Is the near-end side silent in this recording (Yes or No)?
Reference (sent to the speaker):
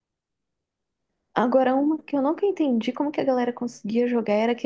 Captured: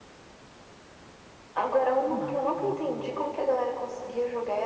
No